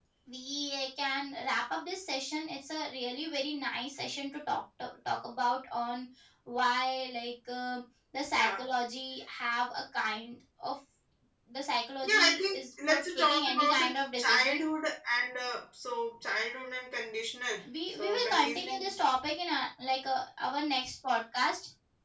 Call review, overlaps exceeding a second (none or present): present